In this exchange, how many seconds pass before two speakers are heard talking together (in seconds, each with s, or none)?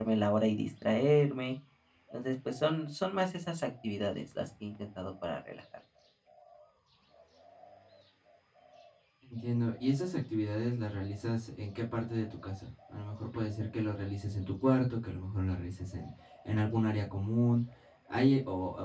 none